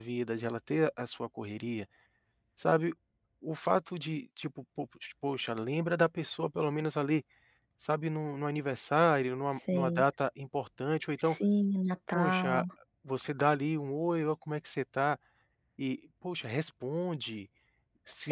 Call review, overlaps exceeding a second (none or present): none